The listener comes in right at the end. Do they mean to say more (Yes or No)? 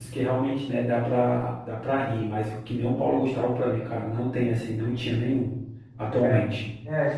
Yes